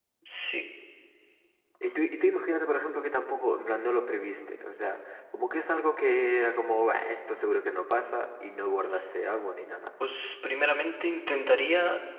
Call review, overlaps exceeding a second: none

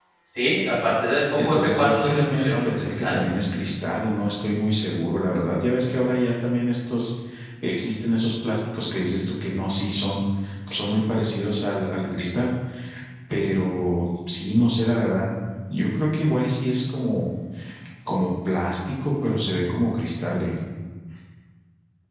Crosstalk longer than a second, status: present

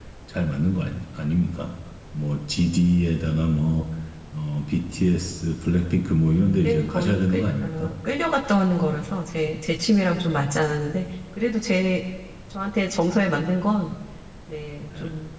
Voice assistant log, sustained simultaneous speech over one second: present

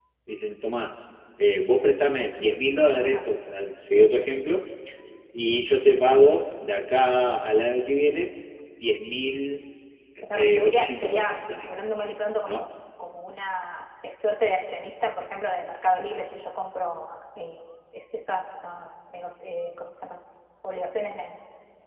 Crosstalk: present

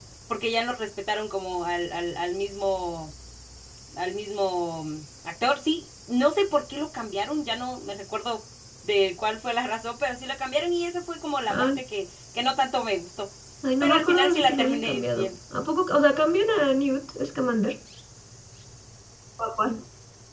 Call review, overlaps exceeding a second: present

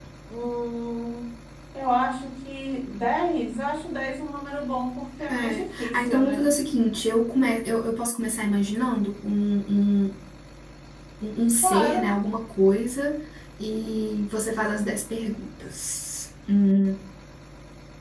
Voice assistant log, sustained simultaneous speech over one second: present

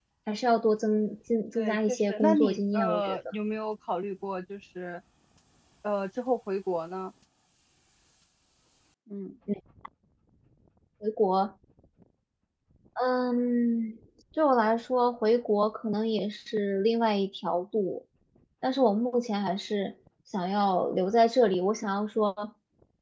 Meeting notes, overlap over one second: present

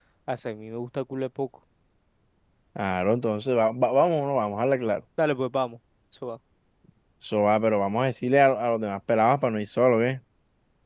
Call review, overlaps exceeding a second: none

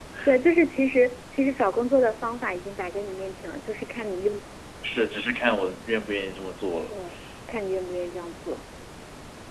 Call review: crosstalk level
none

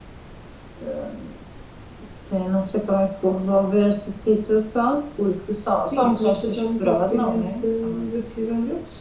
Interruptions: present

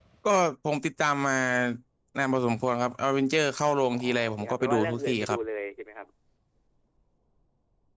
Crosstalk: present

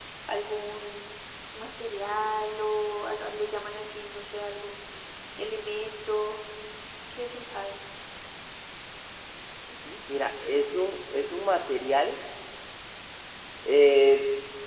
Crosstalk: none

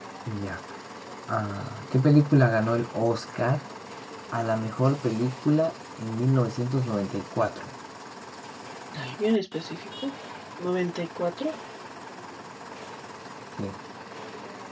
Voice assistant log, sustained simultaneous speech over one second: none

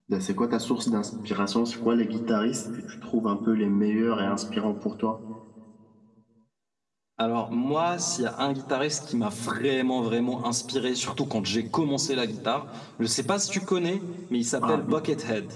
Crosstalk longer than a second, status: none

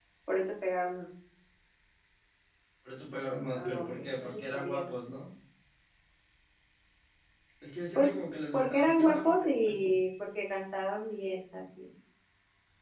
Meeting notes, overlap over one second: present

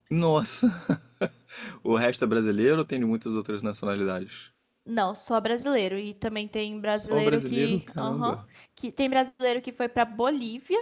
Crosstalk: present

